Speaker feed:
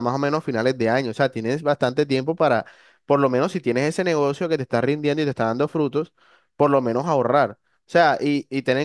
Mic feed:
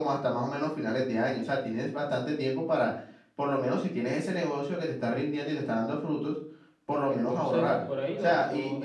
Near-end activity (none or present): present